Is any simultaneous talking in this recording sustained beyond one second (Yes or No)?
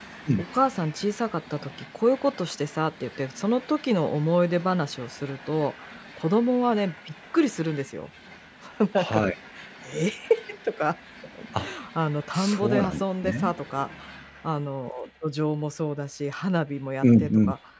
Yes